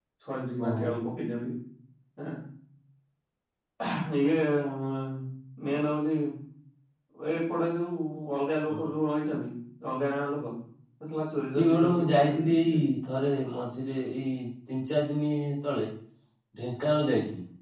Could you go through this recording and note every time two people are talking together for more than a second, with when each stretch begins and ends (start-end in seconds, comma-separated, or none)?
11.5-12.8